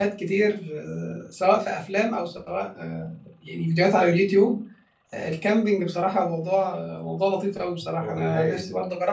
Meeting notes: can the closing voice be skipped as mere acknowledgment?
Yes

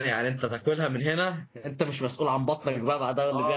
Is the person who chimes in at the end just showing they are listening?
No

